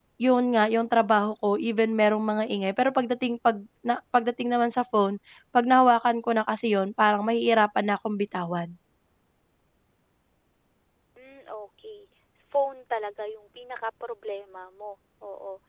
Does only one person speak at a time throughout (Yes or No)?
Yes